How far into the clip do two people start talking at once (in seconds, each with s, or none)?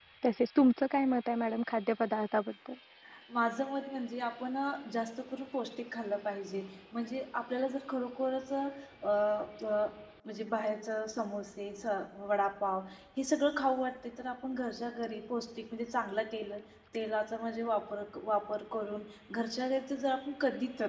none